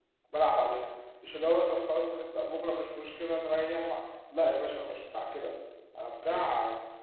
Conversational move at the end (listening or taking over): listening